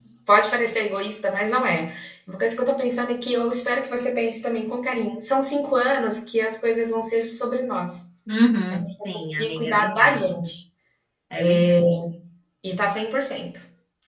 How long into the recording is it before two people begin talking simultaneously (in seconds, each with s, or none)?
8.7 s